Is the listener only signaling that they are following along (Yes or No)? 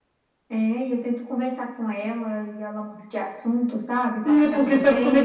No